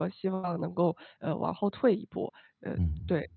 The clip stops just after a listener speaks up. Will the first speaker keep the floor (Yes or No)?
No